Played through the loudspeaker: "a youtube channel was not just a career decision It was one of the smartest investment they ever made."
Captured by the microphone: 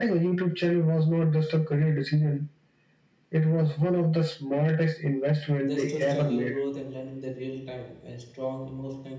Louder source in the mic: echo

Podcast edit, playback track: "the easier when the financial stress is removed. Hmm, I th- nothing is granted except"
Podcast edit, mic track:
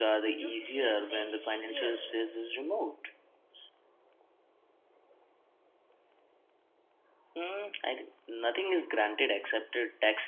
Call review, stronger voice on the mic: echo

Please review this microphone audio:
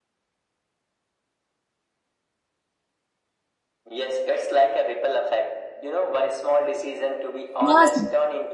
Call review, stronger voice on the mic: user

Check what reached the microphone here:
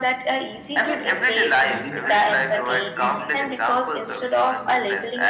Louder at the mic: echo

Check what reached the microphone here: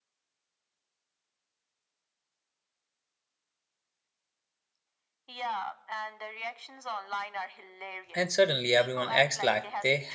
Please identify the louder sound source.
user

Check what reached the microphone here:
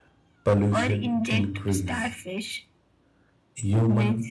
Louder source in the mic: user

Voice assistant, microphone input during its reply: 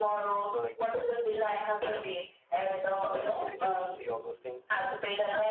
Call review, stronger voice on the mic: echo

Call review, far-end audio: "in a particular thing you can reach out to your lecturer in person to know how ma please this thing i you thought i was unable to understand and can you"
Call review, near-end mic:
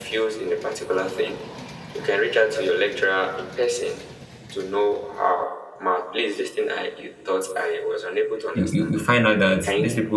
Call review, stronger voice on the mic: user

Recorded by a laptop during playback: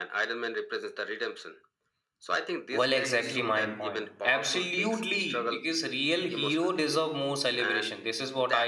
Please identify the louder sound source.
user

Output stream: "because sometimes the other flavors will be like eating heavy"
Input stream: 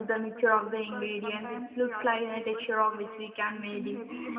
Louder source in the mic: user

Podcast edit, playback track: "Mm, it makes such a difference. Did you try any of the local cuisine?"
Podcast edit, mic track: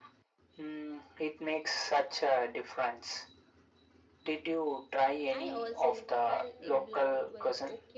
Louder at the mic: echo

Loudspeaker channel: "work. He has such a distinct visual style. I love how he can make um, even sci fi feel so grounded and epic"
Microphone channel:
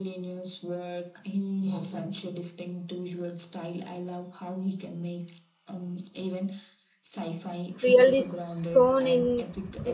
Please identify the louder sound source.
user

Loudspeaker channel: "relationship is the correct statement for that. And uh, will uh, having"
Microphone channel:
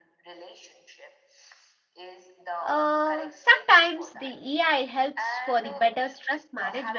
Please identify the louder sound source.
user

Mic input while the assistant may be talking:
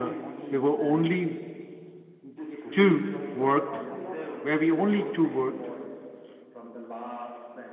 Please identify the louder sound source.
user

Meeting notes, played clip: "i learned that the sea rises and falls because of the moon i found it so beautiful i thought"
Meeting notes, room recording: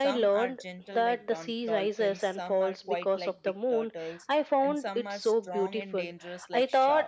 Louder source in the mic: echo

